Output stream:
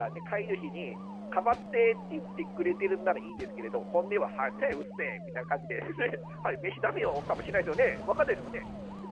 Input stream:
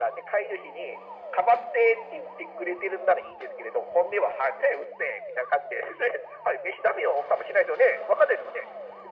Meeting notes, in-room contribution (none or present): none